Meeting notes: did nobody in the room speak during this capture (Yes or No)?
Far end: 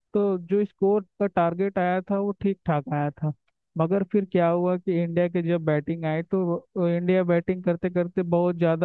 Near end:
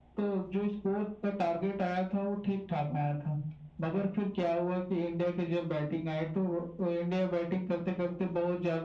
Yes